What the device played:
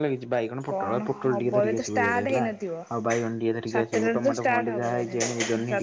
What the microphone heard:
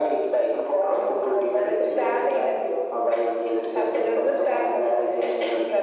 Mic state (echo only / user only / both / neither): echo only